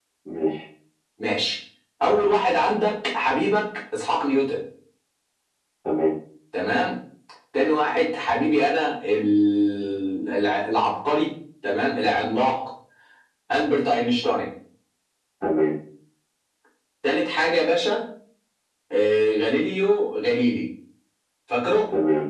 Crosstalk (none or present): none